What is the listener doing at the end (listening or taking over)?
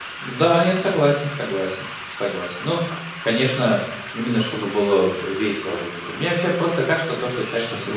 listening